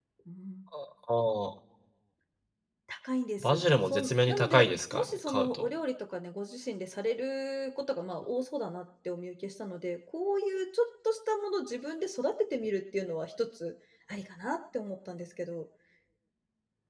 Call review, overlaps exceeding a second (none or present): present